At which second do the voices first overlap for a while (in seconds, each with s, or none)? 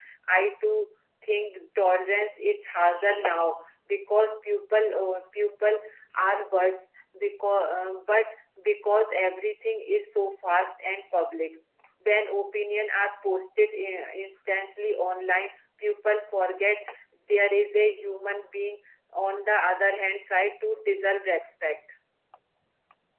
none